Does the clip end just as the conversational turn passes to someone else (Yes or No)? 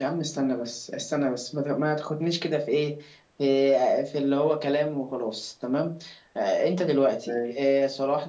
No